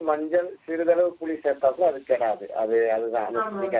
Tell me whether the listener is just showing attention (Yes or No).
Yes